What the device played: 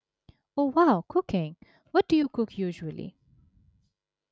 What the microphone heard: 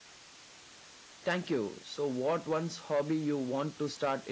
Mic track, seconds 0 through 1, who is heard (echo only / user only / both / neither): neither